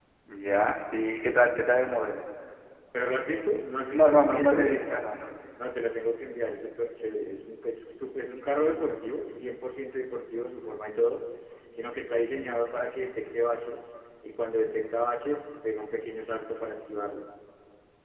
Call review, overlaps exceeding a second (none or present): present